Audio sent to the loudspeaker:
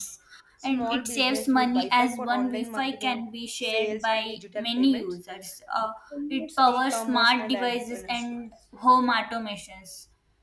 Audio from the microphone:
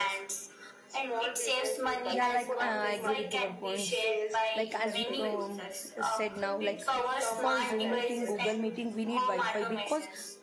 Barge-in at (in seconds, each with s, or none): 2.1 s